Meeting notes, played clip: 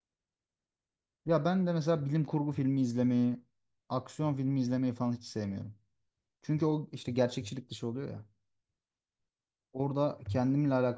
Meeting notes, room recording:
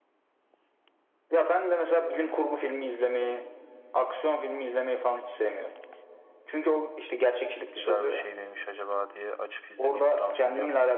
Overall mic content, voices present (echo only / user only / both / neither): both